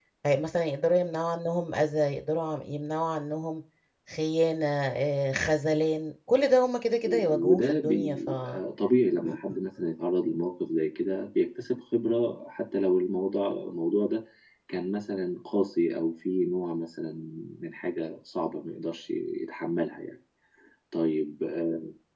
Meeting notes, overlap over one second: present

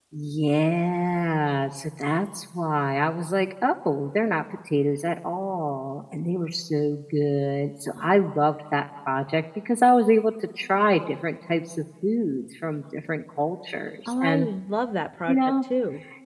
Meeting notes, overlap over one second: none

